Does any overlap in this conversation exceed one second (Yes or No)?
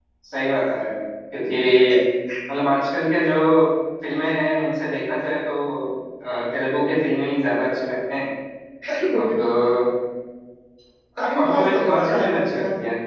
Yes